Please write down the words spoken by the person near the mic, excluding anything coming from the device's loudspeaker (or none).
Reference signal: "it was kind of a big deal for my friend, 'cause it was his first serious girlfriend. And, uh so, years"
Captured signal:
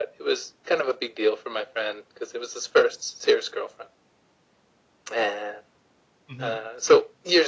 Mhm.